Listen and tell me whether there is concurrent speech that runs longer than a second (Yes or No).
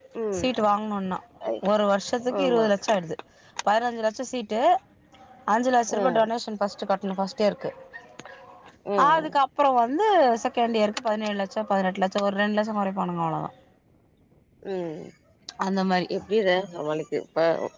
No